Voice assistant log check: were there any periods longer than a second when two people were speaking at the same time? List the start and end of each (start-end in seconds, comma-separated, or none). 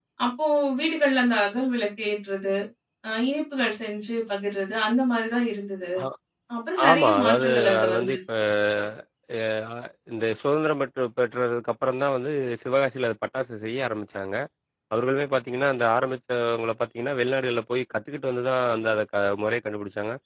6.9-8.2